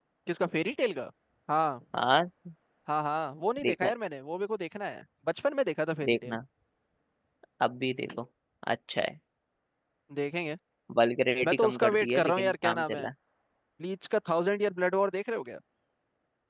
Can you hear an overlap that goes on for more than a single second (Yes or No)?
Yes